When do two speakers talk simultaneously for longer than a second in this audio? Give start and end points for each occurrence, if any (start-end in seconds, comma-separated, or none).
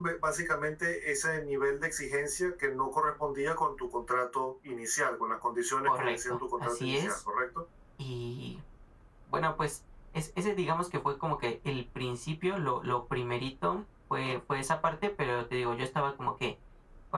5.9-7.2